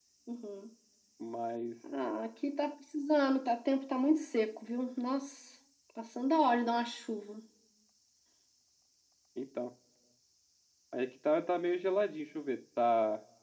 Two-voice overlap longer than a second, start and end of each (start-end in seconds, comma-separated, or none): none